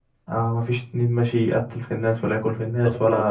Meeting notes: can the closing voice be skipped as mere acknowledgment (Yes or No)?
Yes